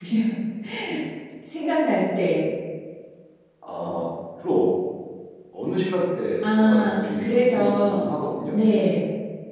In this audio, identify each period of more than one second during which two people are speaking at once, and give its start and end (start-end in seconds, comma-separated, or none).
6.4-8.0